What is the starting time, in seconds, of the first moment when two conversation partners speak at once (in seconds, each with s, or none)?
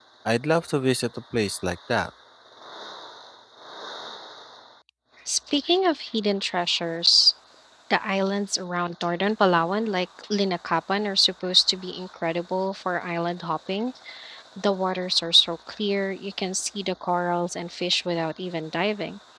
none